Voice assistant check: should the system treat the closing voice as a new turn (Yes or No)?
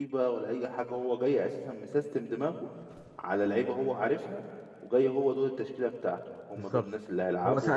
Yes